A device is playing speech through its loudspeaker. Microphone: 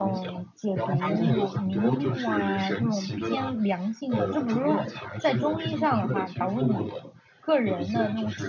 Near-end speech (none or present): present